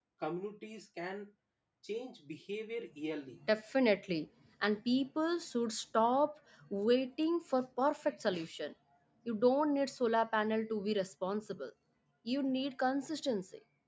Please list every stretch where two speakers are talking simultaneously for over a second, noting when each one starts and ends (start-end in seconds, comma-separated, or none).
none